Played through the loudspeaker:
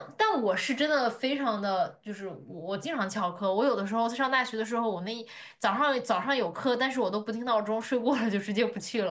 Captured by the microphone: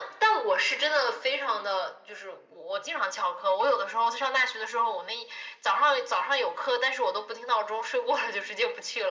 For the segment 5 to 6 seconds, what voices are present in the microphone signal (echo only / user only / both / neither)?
echo only